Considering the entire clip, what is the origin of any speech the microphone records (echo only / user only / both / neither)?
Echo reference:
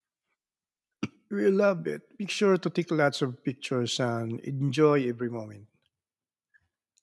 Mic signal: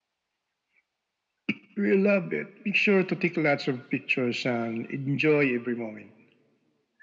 echo only